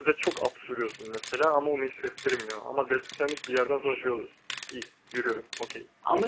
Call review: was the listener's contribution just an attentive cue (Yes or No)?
No